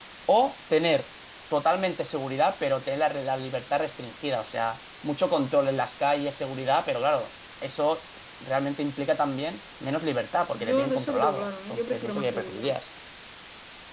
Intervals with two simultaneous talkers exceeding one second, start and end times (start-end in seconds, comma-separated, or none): 10.5-12.6